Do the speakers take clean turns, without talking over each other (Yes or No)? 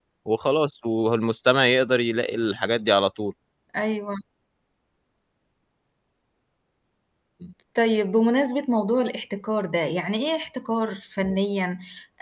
Yes